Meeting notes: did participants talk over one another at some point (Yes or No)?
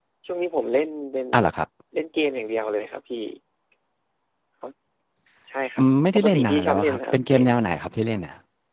Yes